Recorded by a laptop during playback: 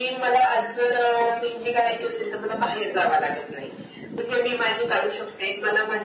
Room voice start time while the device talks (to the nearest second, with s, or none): none